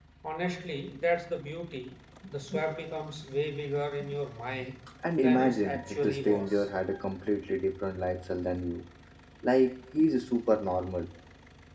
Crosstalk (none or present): present